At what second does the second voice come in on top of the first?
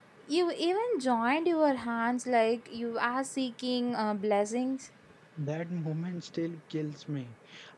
none

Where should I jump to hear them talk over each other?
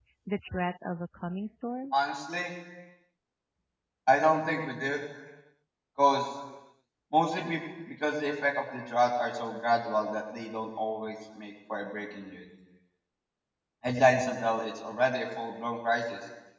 none

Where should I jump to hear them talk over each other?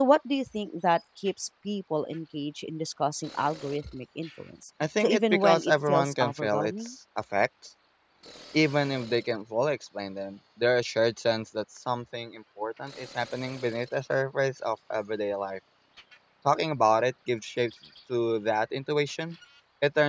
5 s

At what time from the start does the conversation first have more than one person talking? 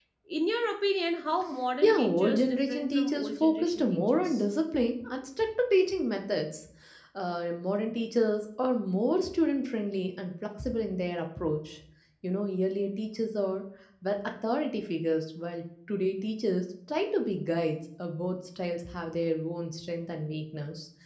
2 s

